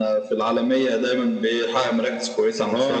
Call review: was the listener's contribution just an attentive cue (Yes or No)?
No